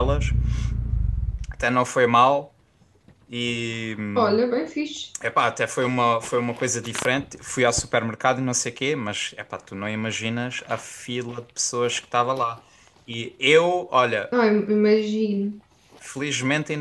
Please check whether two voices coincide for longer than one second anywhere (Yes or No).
No